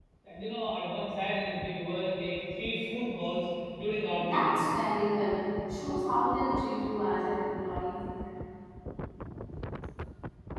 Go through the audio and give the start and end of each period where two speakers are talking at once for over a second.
none

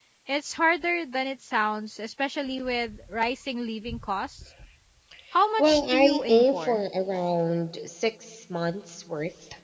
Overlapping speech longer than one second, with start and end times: 5.6-6.8

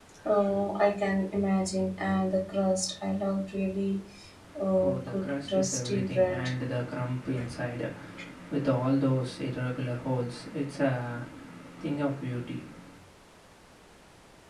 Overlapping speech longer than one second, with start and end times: 4.8-6.5

